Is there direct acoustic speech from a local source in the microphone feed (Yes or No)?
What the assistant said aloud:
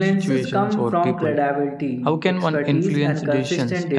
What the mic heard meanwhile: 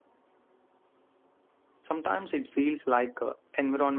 Yes